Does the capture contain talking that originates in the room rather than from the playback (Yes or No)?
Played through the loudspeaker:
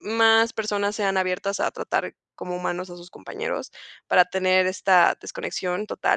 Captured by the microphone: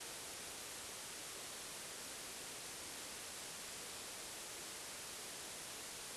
No